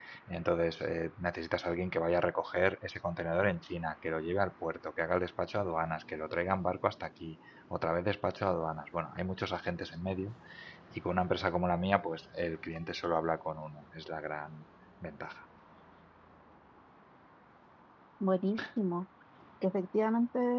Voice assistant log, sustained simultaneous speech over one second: none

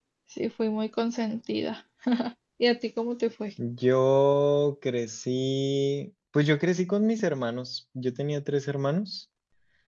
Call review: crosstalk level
none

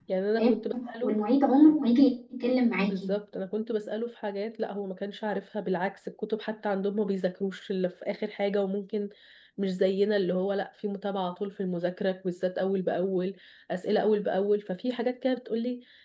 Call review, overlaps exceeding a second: none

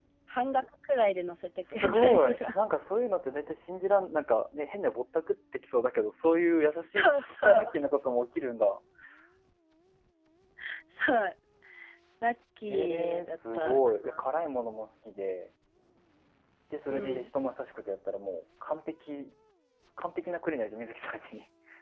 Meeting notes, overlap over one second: present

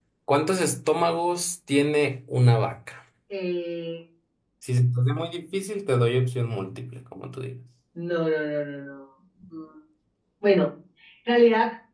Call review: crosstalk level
none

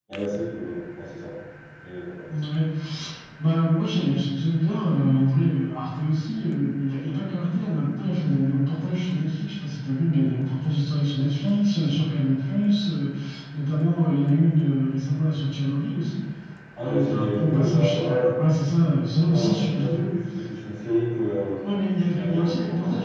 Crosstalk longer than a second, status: present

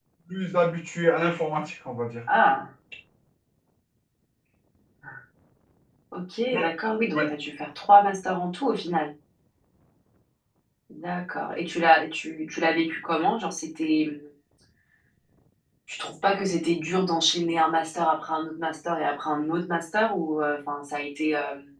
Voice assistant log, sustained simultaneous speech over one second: none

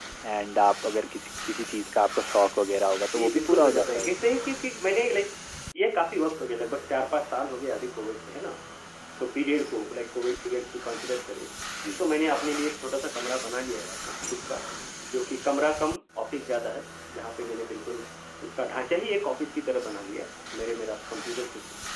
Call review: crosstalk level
present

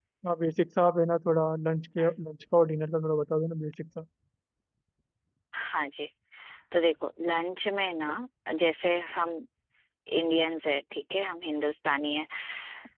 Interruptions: none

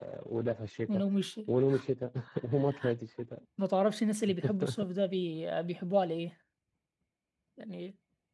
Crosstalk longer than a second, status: none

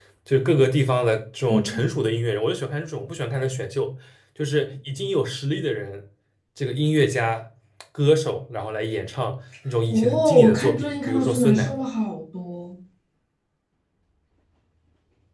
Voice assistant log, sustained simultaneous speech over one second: present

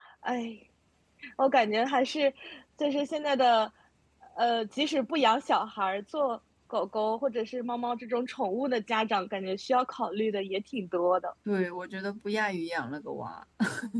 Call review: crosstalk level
none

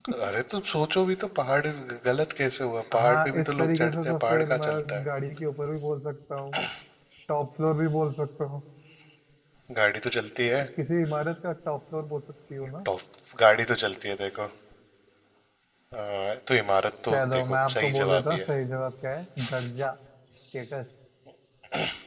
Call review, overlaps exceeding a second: present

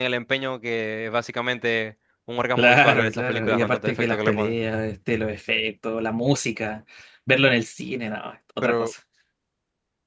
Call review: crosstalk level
present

